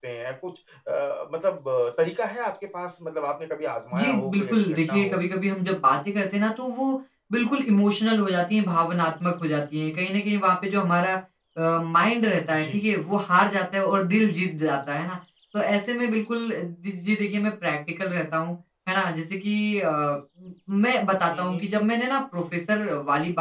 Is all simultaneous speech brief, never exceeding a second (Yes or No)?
No